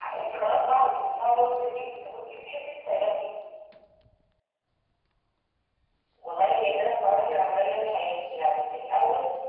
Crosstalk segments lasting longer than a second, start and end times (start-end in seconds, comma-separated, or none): none